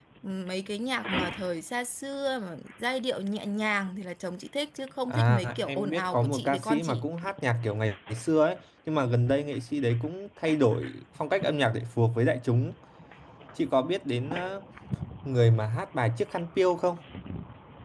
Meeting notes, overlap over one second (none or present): present